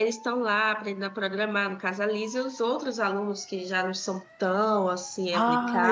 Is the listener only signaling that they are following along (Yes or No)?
No